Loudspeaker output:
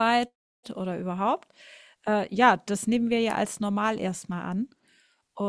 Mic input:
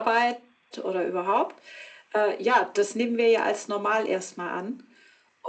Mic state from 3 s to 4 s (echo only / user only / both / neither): echo only